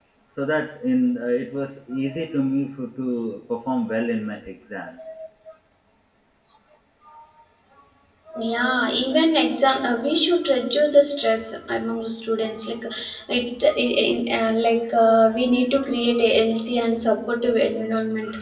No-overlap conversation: Yes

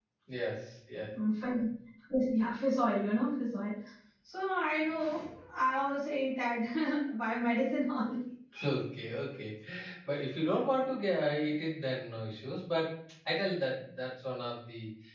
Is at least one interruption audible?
No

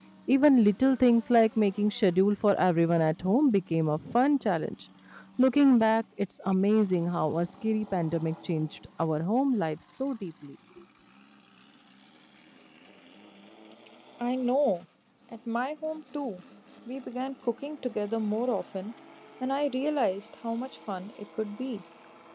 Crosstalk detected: No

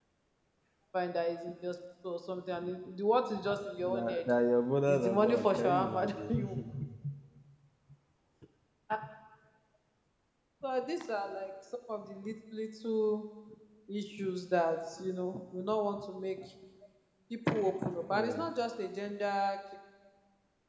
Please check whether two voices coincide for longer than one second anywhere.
Yes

